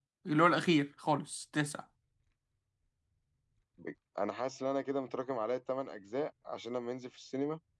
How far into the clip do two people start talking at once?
none

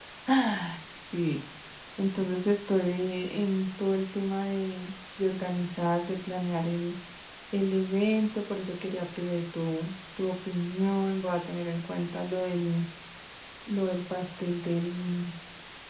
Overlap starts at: none

